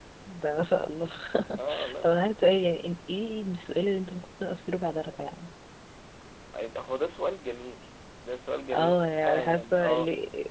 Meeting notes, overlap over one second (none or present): present